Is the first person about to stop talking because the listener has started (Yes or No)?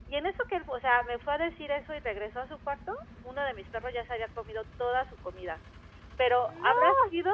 No